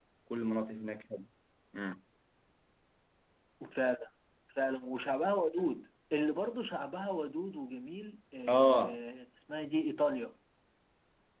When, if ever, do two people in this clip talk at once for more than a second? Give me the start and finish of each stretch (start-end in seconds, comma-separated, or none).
none